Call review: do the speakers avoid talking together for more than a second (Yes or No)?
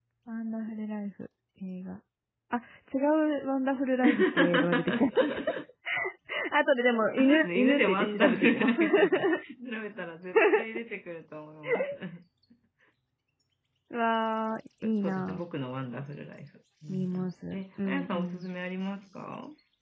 No